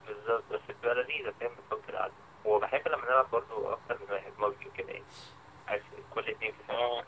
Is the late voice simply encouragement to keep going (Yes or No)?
No